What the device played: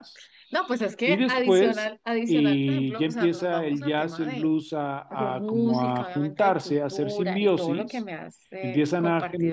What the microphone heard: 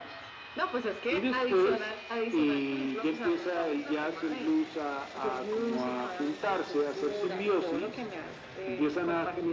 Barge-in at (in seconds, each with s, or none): none